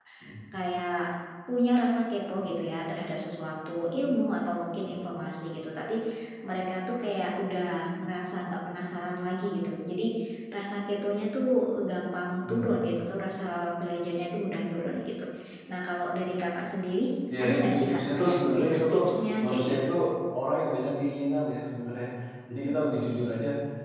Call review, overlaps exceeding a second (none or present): present